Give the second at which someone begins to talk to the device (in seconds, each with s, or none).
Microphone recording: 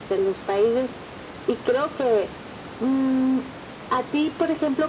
none